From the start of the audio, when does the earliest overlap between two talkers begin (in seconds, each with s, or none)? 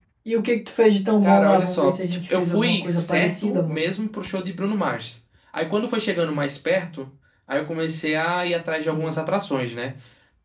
1.2 s